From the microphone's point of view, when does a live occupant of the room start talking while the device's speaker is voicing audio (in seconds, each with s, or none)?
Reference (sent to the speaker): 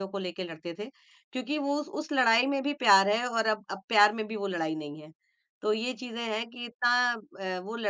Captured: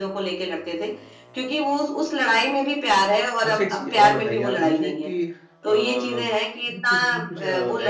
3.4 s